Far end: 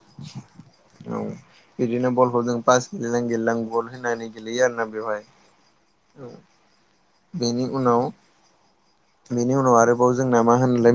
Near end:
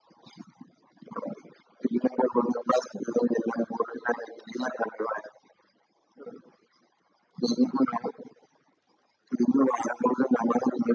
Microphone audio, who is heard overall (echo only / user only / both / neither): echo only